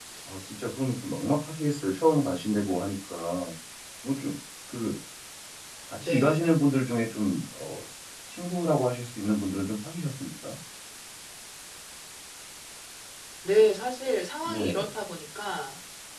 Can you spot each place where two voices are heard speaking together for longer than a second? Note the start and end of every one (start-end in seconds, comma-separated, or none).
none